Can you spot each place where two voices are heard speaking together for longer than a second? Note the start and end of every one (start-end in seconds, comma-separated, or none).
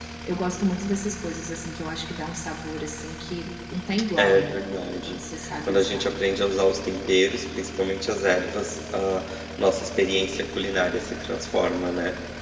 none